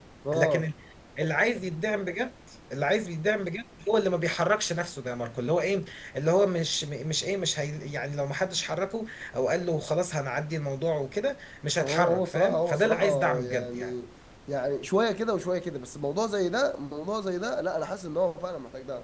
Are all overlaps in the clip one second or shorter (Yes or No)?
No